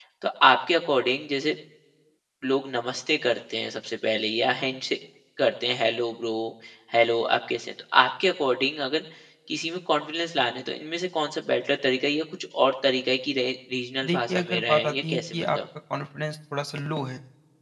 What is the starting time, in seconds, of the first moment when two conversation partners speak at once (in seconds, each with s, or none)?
14.0 s